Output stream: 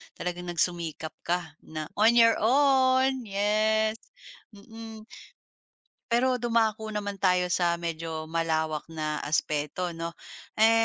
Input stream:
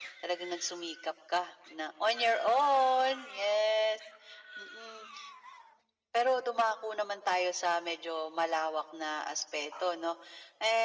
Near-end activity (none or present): none